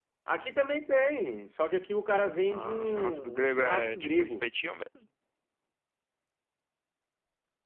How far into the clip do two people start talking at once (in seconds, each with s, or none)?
2.5 s